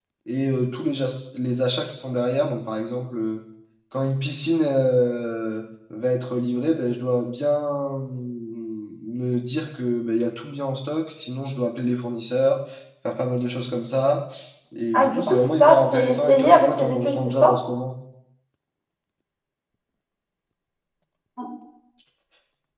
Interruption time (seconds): 14.9 s

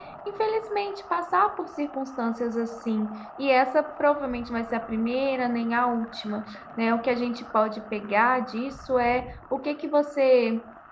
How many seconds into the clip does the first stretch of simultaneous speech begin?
none

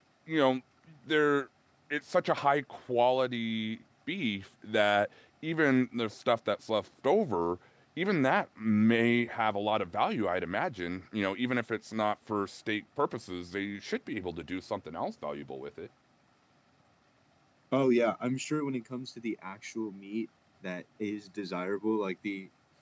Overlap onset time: none

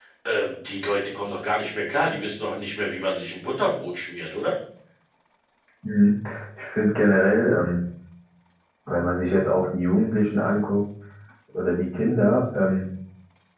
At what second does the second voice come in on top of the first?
none

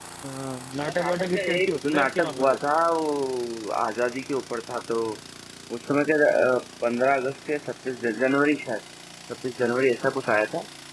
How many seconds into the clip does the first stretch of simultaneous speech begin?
1.0 s

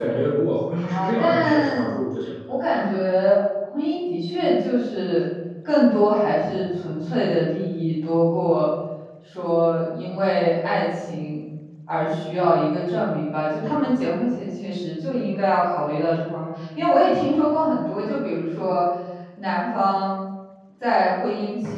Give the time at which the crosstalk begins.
0.7 s

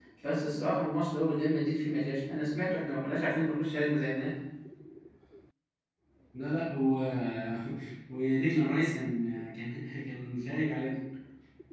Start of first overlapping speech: none

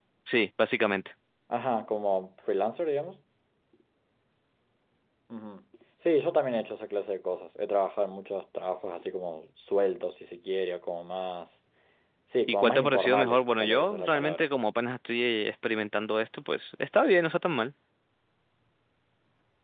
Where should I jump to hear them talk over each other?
12.5 s

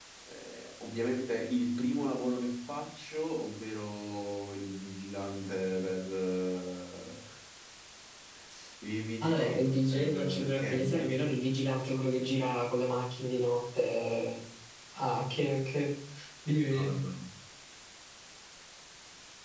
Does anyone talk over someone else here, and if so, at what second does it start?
9.2 s

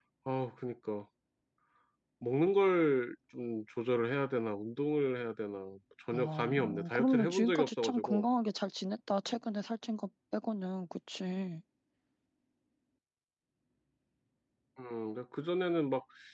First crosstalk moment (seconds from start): 6.1 s

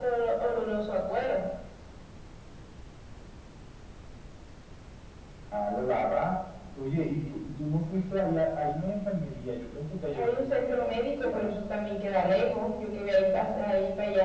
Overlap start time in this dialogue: 10.1 s

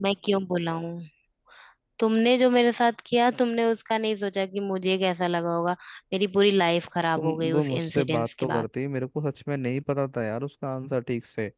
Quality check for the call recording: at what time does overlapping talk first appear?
7.2 s

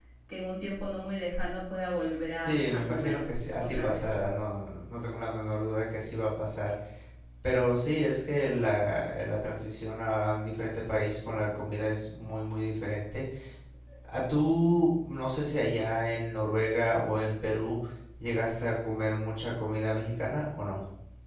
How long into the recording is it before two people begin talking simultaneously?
2.0 s

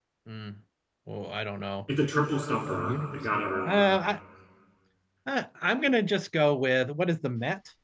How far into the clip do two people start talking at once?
2.7 s

